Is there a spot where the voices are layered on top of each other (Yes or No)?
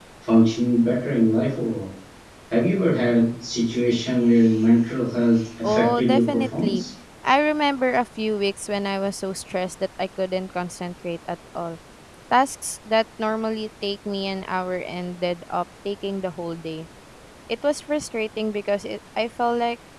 Yes